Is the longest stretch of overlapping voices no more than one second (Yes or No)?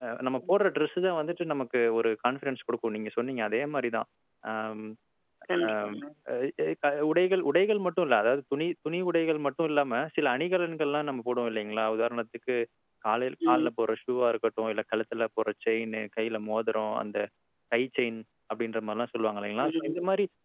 Yes